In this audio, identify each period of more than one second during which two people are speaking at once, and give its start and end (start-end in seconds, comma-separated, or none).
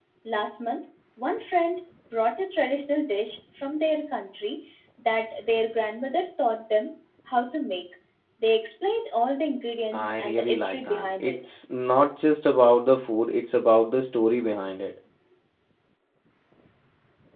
9.9-11.4